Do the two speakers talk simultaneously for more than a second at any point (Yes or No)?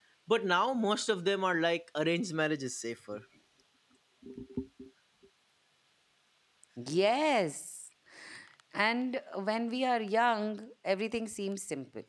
No